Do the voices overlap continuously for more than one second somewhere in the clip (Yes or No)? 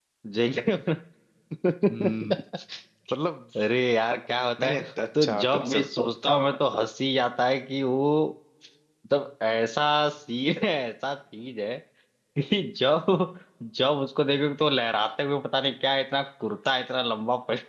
Yes